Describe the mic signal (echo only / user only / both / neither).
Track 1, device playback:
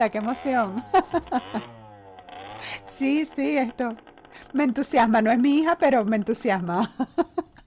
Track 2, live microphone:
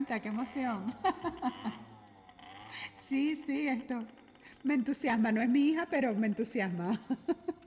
echo only